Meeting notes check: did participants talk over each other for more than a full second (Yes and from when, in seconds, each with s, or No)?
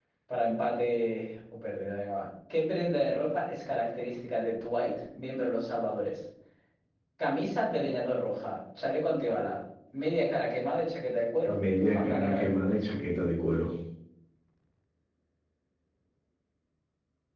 Yes, from 11.4 s